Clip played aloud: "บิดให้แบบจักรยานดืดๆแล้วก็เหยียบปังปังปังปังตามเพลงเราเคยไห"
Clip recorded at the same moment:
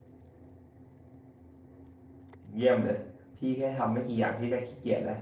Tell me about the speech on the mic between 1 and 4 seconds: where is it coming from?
user only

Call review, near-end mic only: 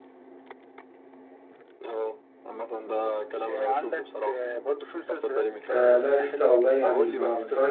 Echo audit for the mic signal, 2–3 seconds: echo only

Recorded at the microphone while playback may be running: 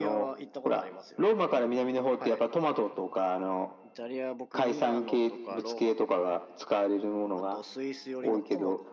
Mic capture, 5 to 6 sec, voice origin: both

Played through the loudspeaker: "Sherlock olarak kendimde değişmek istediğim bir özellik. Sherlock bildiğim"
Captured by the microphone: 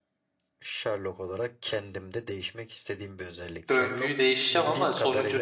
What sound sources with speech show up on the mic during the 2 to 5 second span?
both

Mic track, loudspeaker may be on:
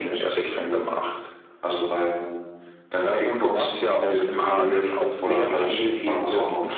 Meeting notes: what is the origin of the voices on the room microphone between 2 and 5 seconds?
both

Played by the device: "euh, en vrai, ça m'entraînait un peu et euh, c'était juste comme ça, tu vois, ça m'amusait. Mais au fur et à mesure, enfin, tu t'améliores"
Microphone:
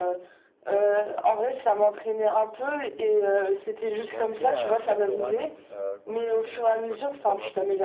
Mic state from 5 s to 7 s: both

